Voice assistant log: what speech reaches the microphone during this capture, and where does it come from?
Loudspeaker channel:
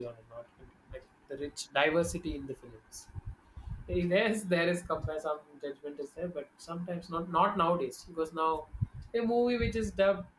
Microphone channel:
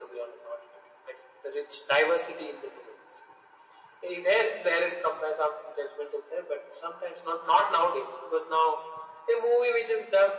echo only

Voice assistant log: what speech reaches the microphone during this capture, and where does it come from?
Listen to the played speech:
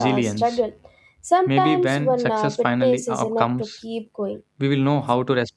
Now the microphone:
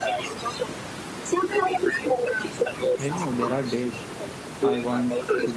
both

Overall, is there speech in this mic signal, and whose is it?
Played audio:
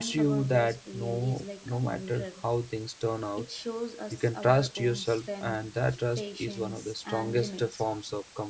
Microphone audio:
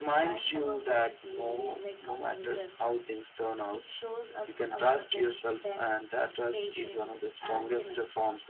echo only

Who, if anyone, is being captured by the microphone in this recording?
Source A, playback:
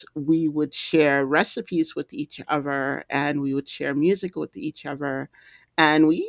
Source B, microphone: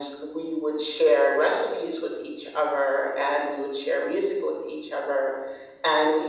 echo only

